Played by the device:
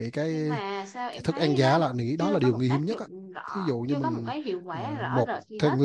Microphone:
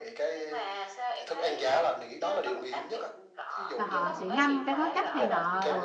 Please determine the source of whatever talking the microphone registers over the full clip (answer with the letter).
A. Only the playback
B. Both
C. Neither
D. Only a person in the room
B